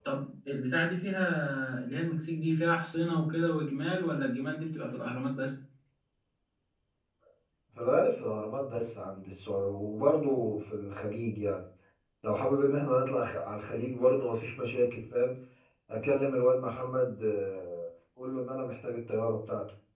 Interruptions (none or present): none